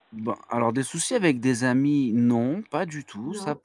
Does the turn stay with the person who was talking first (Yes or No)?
Yes